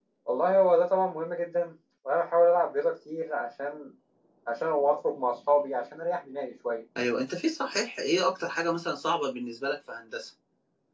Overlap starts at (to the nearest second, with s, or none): none